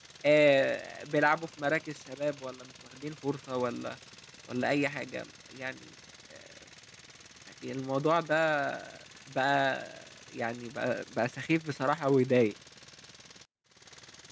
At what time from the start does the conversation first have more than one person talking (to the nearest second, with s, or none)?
none